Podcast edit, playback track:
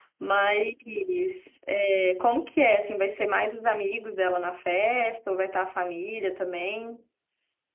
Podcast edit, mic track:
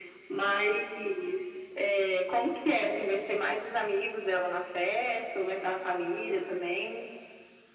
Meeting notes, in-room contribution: none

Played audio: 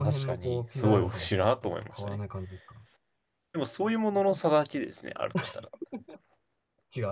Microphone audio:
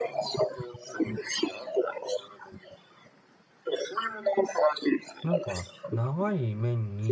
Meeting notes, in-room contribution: present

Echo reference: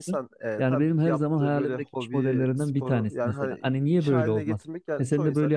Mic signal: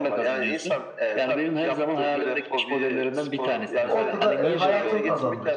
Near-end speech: present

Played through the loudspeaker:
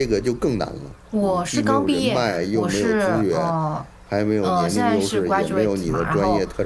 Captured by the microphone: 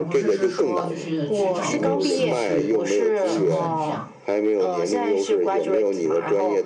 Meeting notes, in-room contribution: present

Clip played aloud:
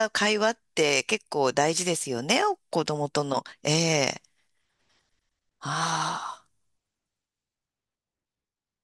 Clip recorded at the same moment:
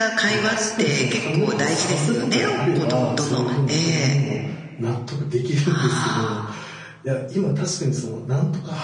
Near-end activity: present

